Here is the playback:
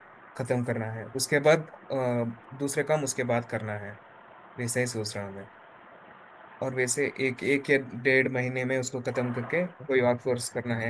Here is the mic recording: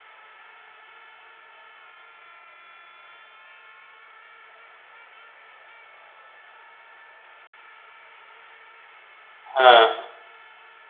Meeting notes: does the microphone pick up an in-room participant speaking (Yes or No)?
Yes